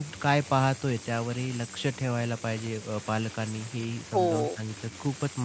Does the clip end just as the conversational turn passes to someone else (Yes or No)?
No